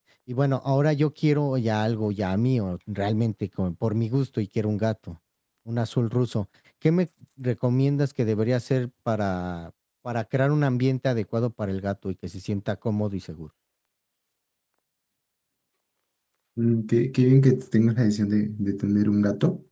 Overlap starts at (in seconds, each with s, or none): none